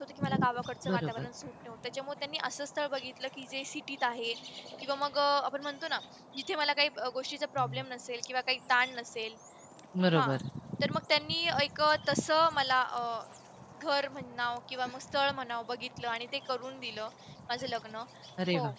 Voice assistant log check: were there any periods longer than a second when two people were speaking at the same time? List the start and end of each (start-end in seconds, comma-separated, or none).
none